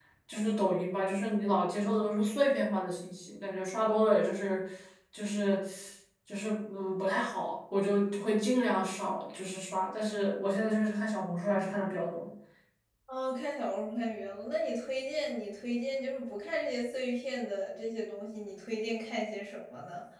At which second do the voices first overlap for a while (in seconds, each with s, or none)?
none